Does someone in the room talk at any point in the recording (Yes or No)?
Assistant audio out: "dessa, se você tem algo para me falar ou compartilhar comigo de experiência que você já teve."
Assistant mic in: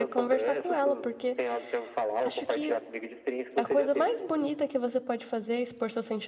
Yes